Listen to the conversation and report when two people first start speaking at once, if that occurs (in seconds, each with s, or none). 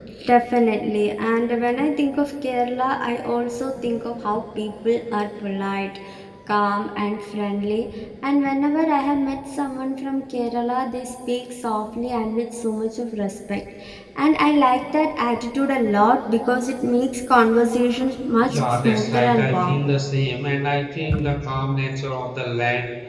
18.5 s